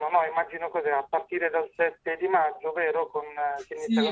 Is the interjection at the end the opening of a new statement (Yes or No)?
Yes